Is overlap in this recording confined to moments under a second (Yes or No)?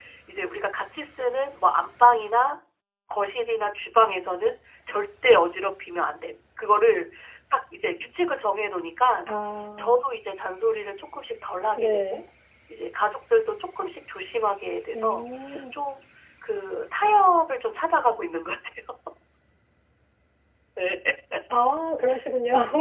Yes